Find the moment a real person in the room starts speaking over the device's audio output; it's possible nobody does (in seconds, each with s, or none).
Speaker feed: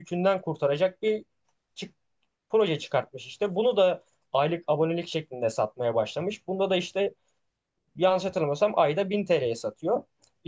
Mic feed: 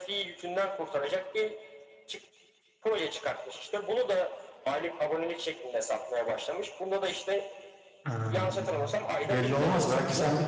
8.0 s